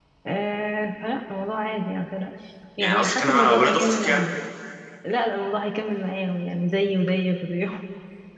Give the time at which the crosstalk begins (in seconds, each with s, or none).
2.8 s